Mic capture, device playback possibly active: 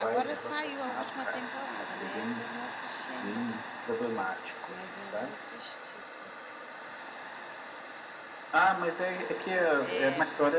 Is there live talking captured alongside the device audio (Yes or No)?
Yes